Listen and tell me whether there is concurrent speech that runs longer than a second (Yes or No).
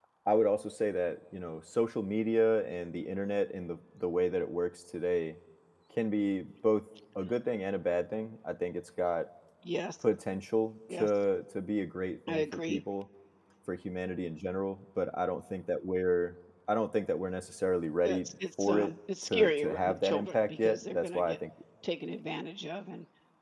Yes